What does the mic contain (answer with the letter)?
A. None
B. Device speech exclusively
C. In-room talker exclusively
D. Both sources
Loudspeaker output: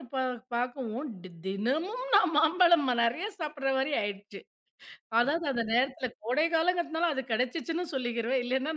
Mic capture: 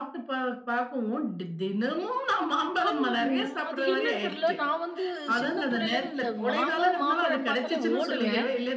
D